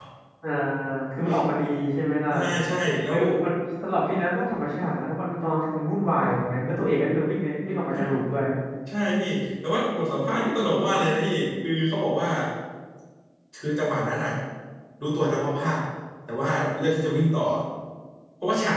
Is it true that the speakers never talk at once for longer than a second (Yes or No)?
Yes